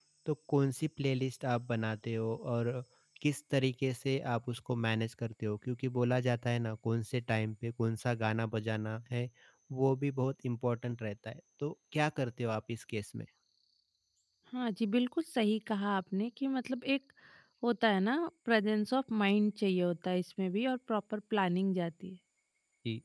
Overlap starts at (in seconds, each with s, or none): none